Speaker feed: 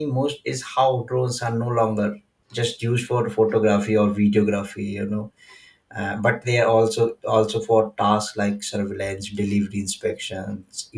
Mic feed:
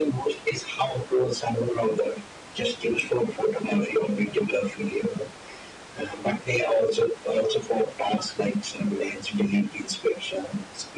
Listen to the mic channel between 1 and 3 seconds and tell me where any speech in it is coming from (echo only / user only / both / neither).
echo only